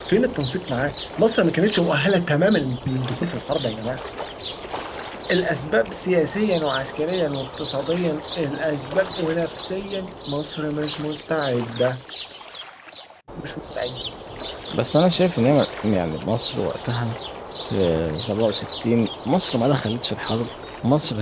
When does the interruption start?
none

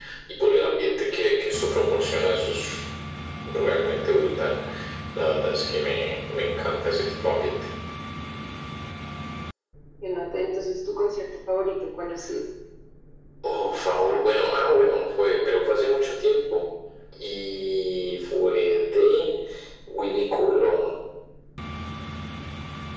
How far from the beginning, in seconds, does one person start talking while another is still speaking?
none

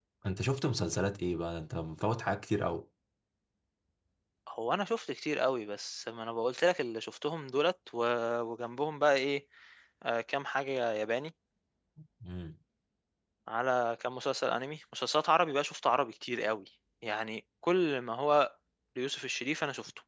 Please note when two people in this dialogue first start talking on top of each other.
none

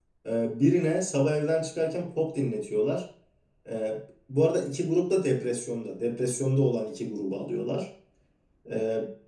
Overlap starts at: none

